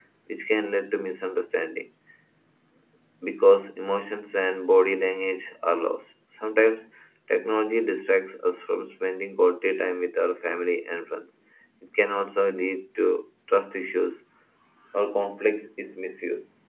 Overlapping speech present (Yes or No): No